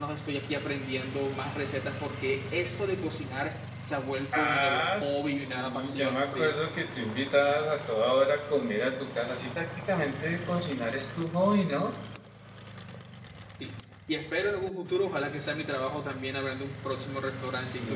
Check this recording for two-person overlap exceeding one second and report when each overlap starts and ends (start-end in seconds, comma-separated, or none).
4.3-6.6